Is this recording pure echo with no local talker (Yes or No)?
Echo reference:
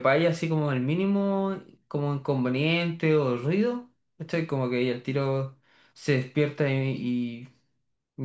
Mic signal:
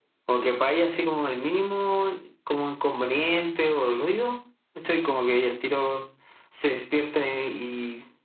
Yes